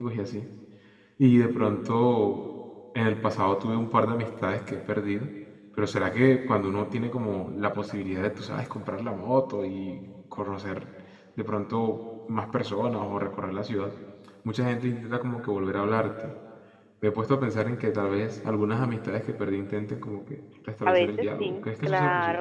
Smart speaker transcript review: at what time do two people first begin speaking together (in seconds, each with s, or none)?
20.9 s